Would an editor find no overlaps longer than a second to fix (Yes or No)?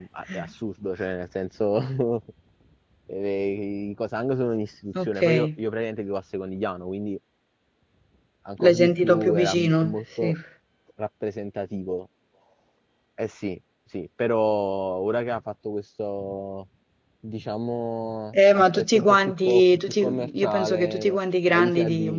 No